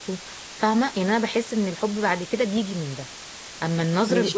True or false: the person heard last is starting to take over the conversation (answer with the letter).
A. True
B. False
A